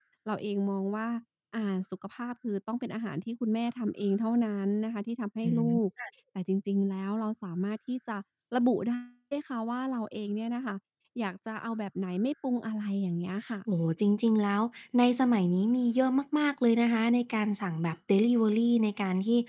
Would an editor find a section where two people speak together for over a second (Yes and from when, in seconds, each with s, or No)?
No